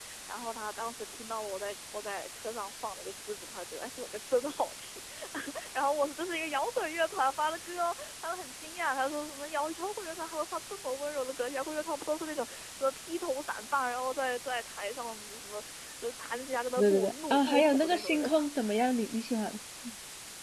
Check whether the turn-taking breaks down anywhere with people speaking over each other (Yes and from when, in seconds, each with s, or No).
Yes, from 16.8 s